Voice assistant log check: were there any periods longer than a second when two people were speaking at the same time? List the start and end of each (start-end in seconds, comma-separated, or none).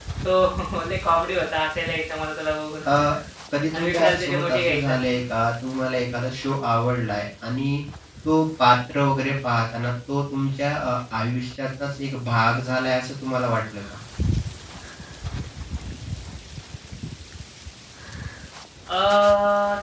3.7-4.9